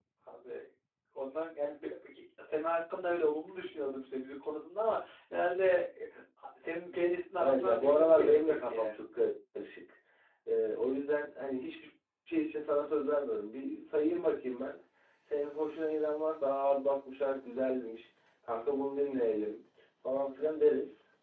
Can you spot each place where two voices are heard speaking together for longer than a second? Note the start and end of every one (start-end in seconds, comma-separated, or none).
7.4-8.9